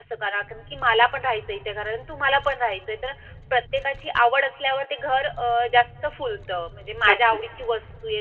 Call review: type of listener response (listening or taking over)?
listening